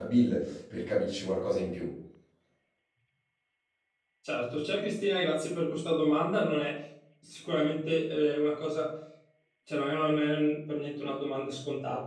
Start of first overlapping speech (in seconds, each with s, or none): none